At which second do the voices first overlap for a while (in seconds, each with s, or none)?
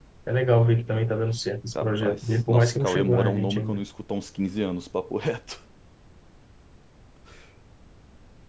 1.8 s